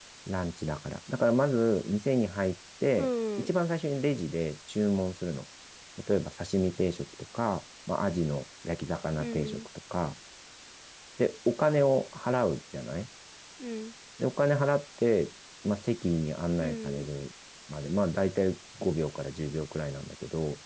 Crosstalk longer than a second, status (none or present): none